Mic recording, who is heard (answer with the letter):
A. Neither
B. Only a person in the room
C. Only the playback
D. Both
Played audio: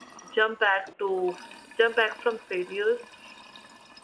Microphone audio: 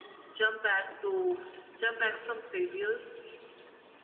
C